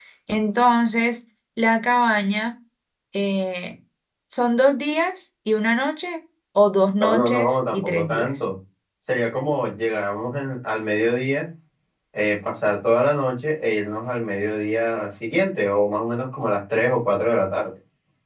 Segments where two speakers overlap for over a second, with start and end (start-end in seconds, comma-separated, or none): 7.0-8.4